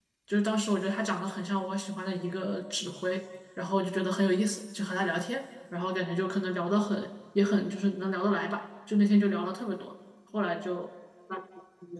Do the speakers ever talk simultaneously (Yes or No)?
No